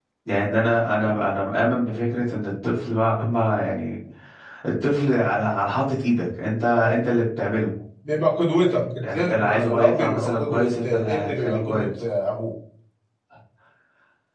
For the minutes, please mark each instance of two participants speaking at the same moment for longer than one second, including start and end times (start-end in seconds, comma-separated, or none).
9.0-11.9